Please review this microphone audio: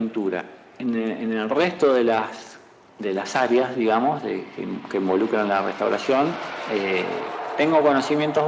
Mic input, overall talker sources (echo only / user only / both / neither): echo only